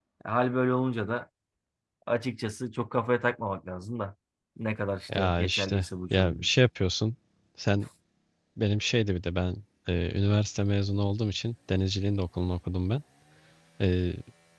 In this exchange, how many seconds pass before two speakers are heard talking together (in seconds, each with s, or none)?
5.2 s